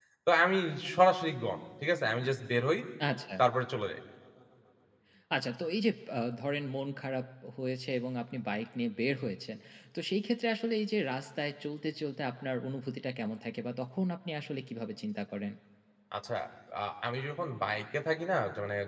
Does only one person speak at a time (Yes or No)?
Yes